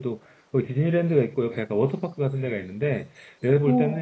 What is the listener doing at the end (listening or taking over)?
listening